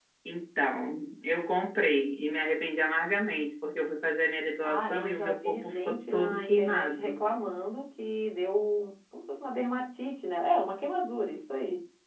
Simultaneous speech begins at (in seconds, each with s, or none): 4.6 s